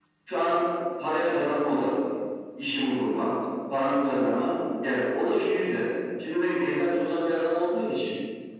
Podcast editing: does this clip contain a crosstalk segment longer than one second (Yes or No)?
No